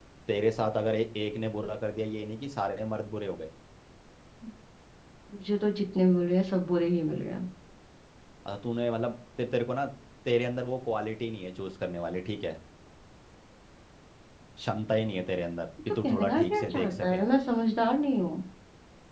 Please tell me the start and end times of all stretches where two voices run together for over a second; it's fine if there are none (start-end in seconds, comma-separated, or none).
15.9-17.2